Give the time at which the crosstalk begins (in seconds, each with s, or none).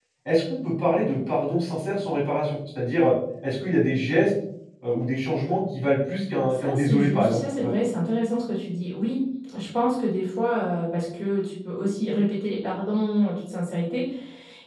6.5 s